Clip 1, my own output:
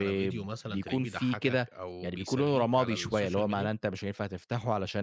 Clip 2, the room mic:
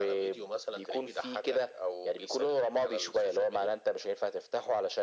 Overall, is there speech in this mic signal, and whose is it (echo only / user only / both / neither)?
echo only